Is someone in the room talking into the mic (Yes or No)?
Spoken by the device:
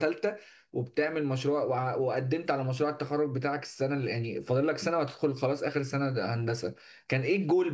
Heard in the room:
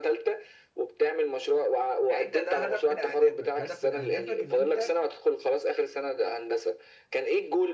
Yes